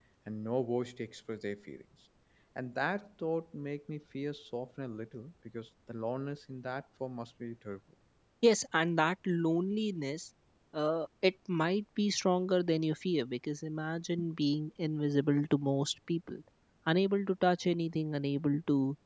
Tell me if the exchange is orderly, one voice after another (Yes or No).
Yes